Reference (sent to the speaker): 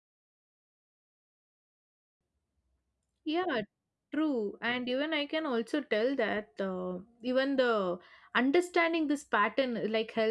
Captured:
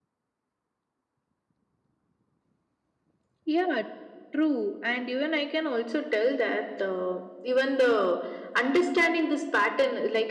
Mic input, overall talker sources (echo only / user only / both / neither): echo only